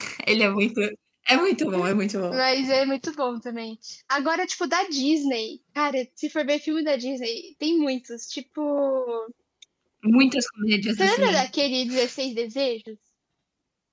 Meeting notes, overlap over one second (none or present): none